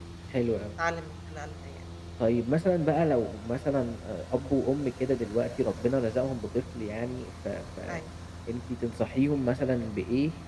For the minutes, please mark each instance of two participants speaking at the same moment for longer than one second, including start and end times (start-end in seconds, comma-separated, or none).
none